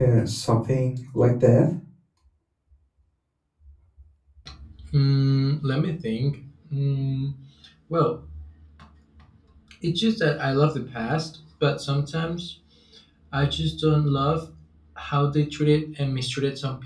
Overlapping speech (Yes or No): No